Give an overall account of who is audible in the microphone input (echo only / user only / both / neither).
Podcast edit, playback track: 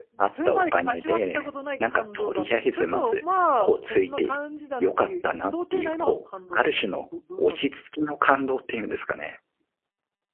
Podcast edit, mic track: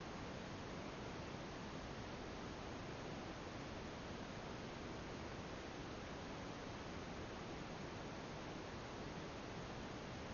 neither